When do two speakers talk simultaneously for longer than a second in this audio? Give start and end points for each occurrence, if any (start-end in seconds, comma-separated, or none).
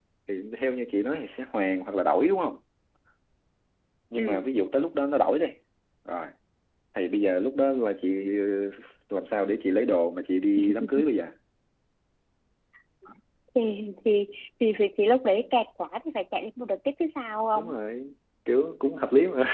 none